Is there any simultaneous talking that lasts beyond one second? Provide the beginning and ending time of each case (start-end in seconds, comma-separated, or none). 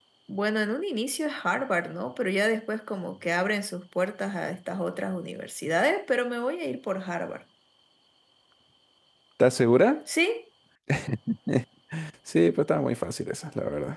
none